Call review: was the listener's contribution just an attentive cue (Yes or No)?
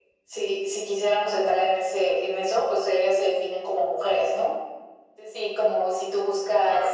Yes